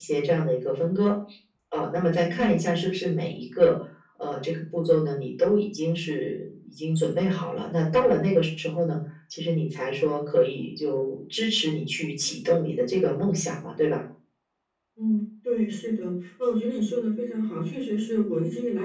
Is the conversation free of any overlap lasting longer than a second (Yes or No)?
Yes